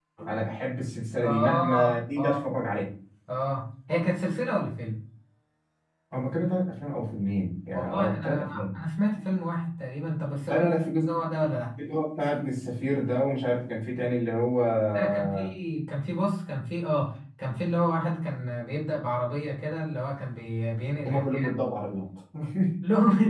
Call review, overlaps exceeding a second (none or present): present